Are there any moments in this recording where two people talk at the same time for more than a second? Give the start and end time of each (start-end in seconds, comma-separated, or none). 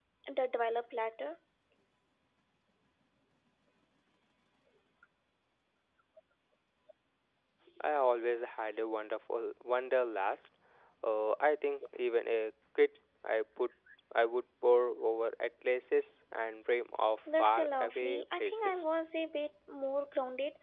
17.4-18.8